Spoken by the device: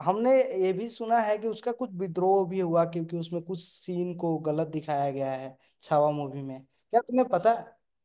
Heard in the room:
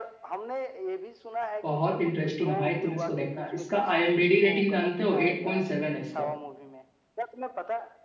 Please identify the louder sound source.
user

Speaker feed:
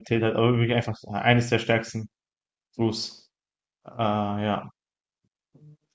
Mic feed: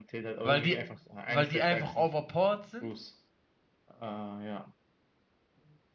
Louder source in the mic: user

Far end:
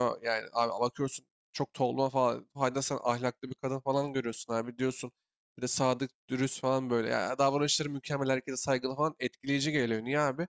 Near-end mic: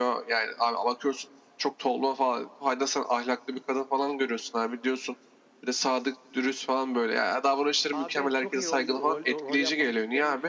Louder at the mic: echo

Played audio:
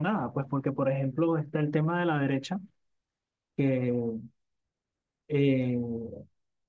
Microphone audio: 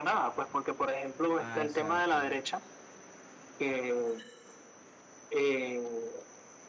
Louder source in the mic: echo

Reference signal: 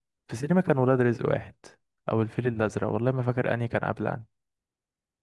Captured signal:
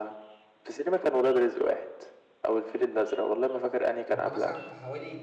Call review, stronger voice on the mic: echo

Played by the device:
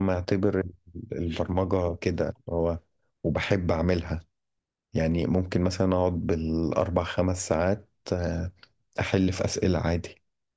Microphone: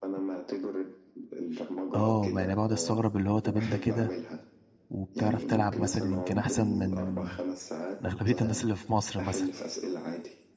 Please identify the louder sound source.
user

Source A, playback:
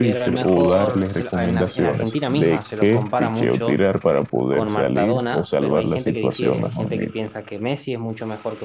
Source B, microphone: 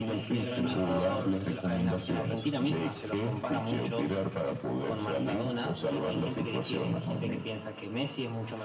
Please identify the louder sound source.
echo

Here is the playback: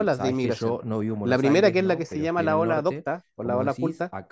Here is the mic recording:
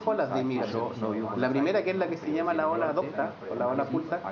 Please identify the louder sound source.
echo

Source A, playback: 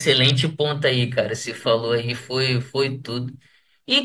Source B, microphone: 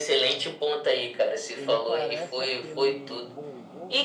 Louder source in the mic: echo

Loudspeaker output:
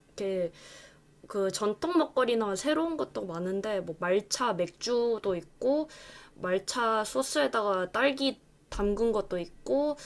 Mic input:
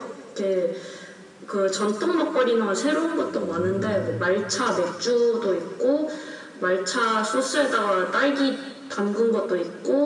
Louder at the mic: echo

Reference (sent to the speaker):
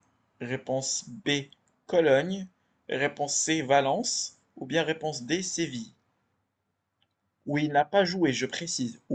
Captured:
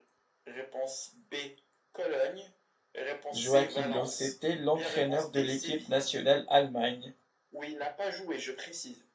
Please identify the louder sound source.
user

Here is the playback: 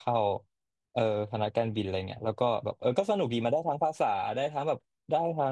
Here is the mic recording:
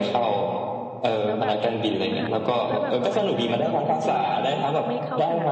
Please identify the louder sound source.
echo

